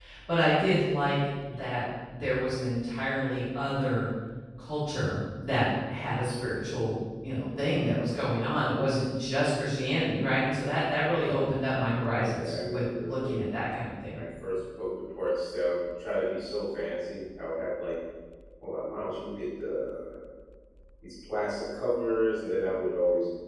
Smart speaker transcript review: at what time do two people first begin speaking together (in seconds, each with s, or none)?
12.2 s